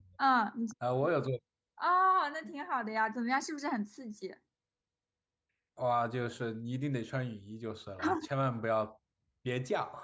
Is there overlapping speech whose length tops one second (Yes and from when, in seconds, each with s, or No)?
No